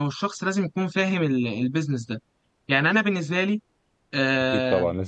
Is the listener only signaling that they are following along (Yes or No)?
No